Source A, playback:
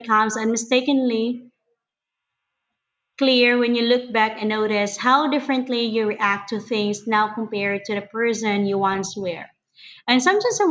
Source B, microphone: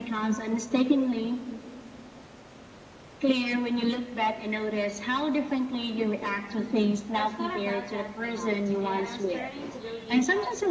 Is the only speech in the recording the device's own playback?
No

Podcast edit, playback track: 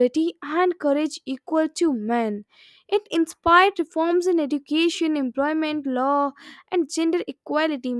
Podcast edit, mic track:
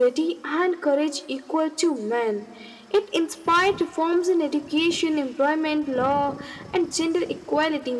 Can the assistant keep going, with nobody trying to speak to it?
Yes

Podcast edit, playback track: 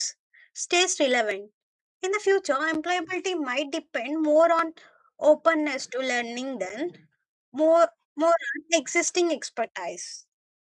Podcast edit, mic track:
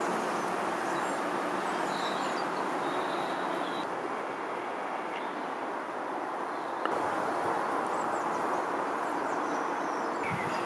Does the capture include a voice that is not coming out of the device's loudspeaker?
No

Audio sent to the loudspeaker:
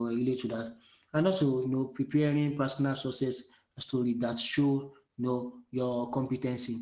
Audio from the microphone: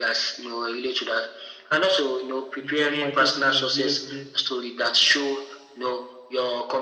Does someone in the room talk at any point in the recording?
Yes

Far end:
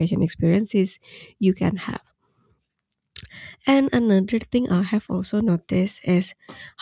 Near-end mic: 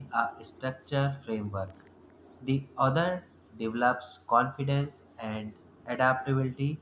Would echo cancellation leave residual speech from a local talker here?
Yes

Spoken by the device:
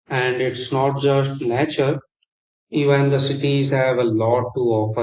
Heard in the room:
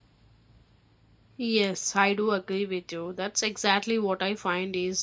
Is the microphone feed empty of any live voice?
No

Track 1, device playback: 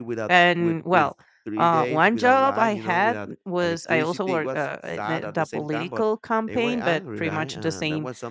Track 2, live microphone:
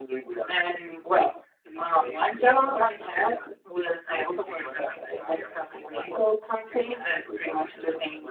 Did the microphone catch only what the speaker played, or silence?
Yes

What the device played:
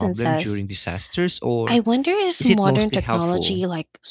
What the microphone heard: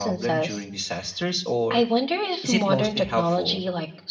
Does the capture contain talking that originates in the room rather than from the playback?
No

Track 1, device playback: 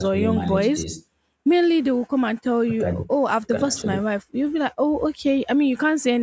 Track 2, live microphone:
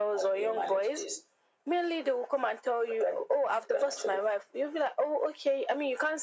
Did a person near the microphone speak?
No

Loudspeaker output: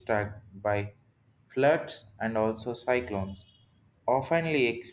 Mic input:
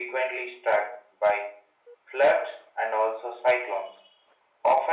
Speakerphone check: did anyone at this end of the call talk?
No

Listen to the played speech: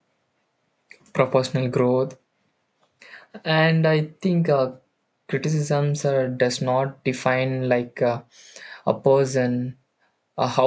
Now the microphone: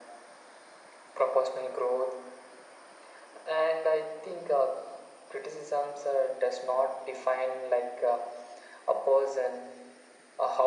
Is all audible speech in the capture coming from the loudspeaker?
Yes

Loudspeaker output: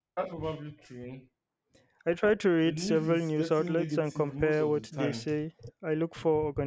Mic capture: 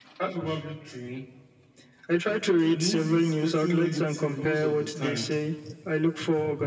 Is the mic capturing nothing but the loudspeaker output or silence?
Yes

